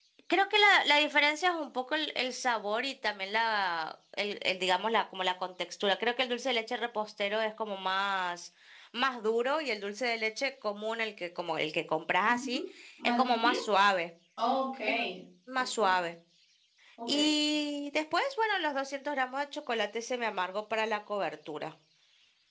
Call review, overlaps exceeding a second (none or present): none